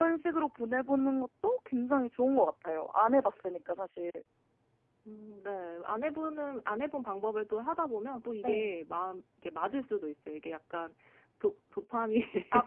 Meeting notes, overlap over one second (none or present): none